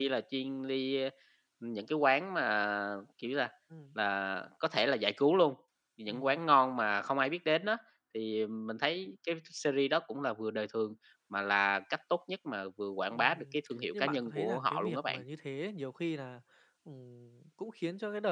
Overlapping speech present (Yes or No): Yes